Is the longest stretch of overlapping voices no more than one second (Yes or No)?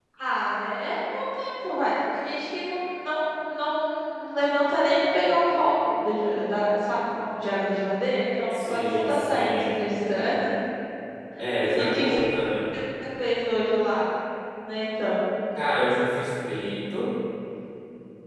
No